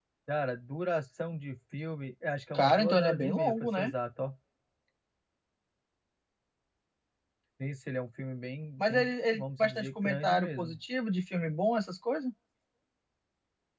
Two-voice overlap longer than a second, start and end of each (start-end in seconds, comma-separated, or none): 2.5-3.9, 8.8-10.8